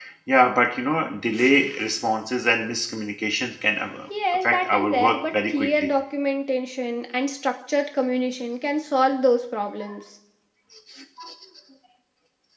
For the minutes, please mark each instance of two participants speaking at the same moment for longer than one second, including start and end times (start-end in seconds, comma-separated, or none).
4.3-5.9